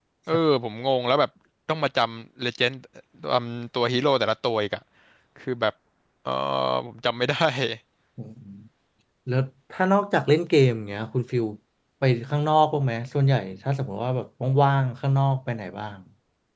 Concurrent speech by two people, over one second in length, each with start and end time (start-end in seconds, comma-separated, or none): none